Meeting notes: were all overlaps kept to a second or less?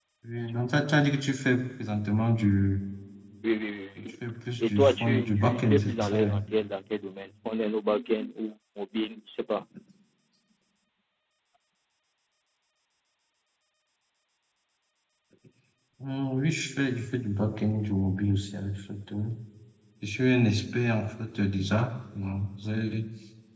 No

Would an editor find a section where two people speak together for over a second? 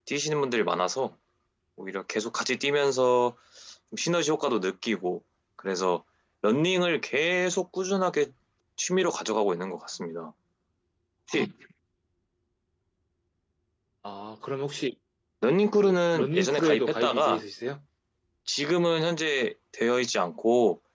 Yes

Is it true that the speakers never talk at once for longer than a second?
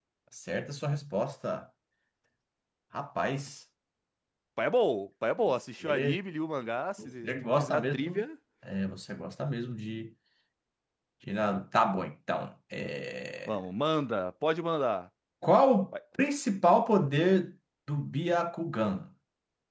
No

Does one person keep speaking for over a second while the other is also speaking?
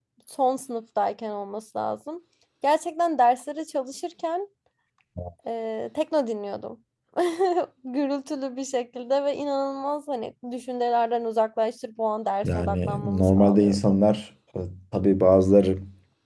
Yes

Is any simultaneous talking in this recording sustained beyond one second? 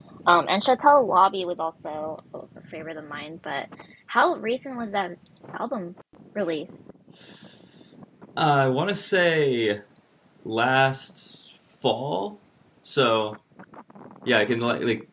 No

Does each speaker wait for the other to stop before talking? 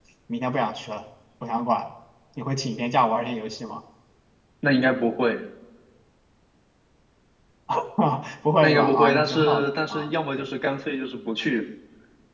No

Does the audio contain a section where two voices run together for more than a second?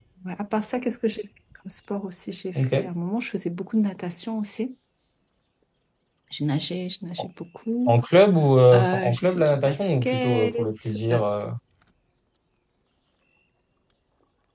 Yes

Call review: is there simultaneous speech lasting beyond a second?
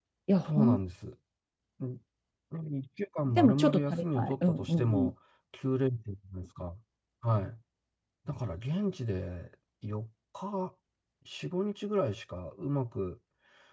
Yes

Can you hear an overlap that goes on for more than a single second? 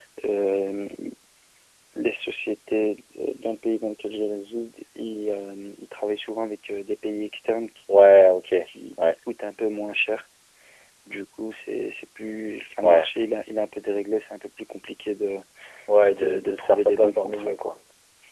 Yes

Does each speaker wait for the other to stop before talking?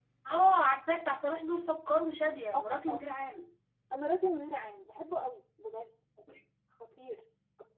Yes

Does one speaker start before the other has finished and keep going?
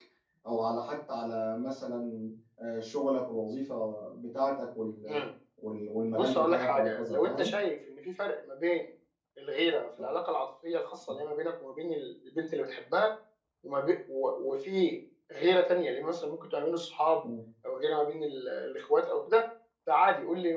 Yes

